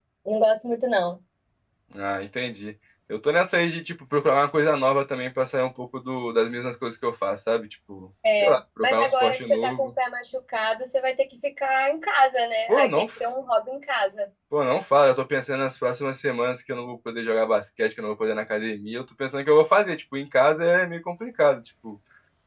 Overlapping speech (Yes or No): Yes